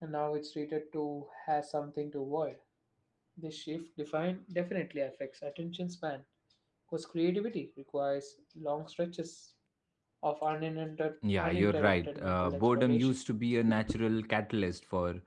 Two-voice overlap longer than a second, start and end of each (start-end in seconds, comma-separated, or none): 11.4-13.1